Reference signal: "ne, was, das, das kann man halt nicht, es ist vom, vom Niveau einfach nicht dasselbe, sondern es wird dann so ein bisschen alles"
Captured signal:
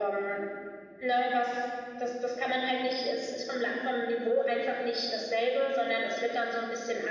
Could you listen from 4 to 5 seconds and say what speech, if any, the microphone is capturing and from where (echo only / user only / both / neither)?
echo only